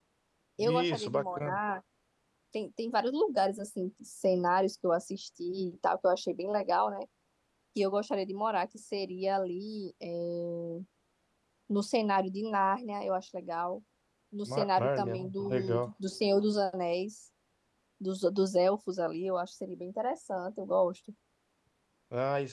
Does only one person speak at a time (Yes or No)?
No